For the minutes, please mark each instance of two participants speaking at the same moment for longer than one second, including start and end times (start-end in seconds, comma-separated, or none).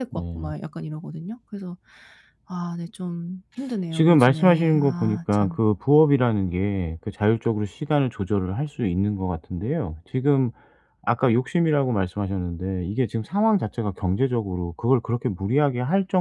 3.9-5.5